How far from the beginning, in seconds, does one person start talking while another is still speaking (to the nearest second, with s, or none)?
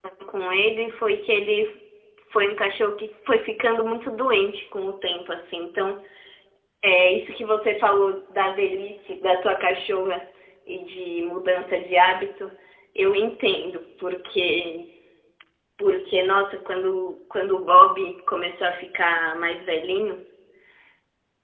none